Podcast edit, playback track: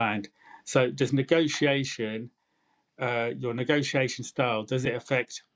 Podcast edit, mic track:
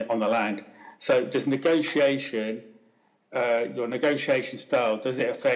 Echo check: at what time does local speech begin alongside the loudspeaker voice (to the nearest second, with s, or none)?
none